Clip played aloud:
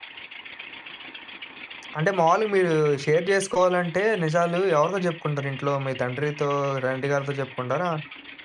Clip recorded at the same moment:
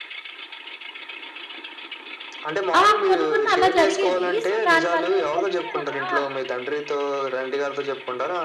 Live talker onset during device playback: 2.8 s

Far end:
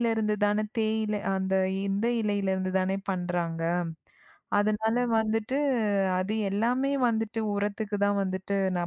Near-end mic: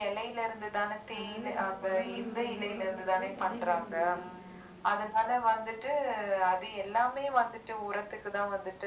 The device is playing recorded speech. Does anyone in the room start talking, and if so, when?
1.2 s

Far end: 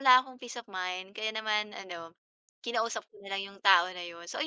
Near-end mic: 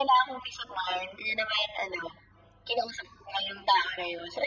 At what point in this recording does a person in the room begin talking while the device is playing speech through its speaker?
none

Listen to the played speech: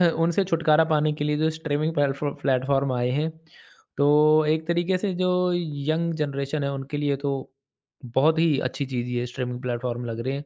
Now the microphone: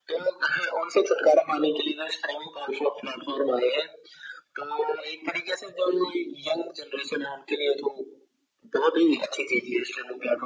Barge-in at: none

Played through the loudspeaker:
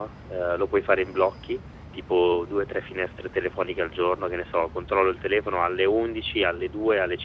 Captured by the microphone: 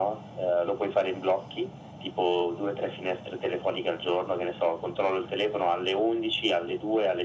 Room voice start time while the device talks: none

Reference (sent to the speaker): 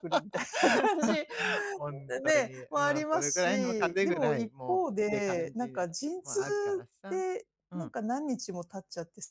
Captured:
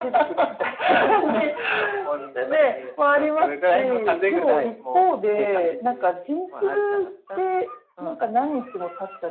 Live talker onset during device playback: none

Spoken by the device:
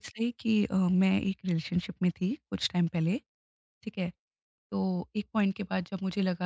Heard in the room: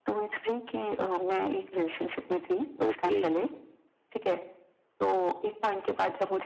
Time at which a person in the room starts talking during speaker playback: 2.9 s

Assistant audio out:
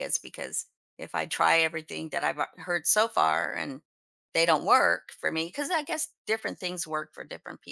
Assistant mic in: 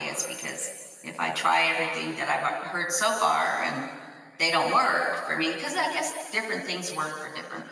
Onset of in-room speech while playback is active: none

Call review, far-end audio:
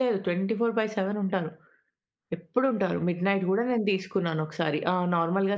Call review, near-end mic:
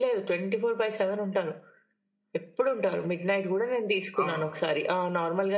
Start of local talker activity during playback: 4.2 s

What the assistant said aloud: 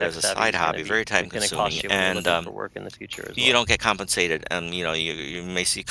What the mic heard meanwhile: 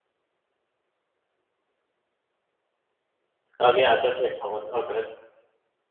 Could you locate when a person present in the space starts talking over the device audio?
3.6 s

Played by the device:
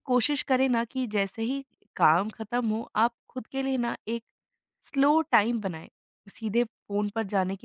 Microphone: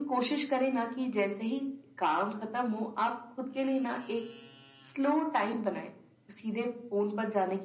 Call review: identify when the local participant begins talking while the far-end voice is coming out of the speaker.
none

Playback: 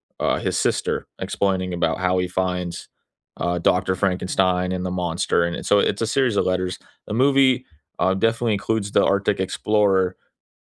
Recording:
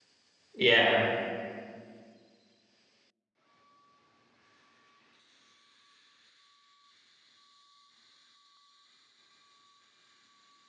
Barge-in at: 0.5 s

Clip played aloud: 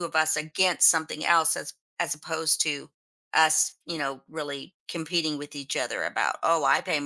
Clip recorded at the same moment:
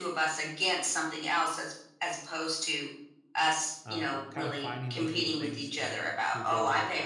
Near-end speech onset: 3.8 s

